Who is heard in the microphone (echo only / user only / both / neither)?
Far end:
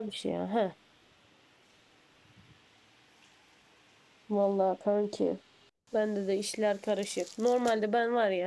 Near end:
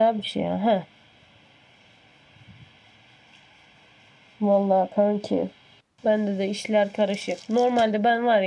echo only